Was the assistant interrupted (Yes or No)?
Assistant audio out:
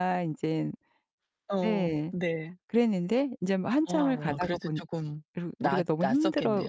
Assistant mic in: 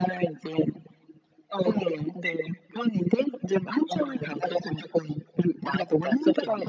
No